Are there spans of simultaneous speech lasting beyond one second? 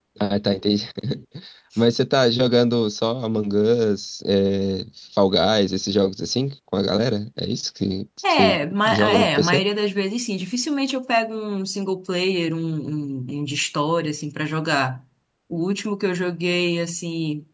Yes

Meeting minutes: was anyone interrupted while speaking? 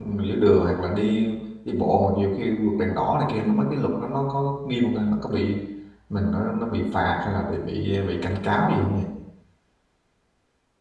No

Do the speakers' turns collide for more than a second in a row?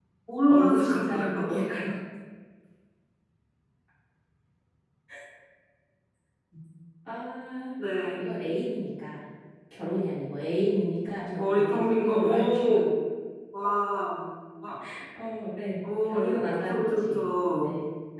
Yes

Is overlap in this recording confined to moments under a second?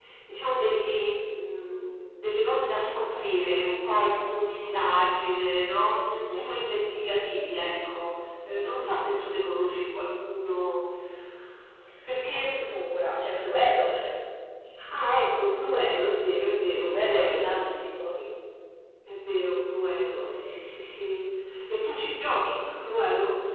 No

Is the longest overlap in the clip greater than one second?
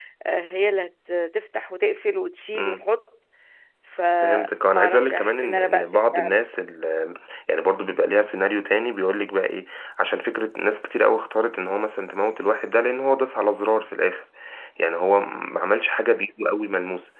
Yes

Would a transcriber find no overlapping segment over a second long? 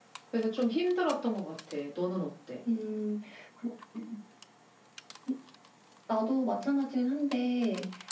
Yes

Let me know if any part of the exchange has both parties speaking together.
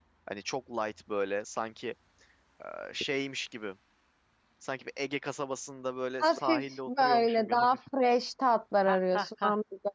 Yes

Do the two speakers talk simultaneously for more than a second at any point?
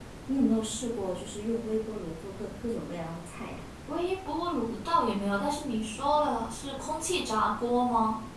No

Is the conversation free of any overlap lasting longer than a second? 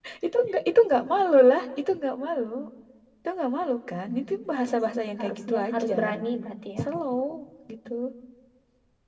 No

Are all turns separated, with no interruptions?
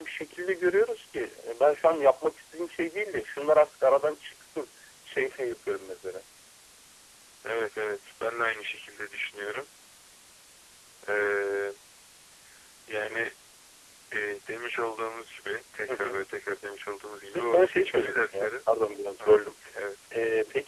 No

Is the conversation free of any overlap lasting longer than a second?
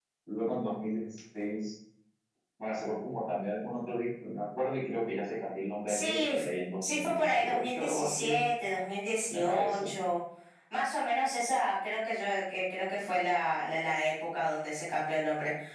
No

